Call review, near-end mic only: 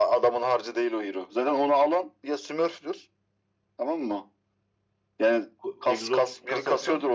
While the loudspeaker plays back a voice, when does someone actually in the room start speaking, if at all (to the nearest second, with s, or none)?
6 s